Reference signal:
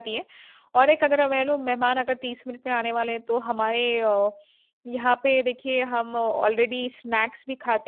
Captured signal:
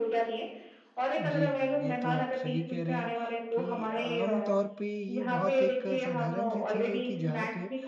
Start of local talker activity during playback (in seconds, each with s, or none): 1.2 s